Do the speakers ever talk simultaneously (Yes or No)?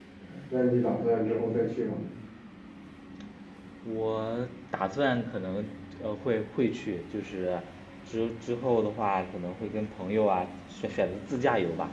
No